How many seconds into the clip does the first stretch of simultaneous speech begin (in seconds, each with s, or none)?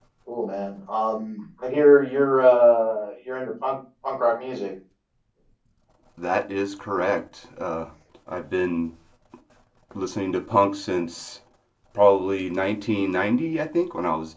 none